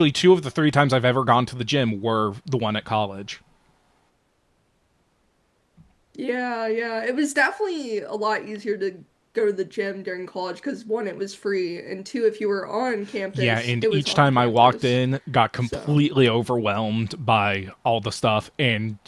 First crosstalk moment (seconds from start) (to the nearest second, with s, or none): 13 s